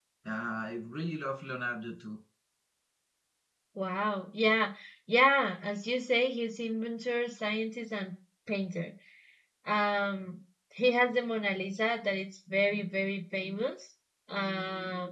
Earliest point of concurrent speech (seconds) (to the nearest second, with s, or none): none